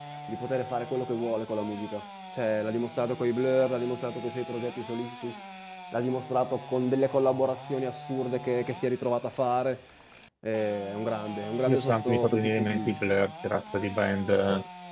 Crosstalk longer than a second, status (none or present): present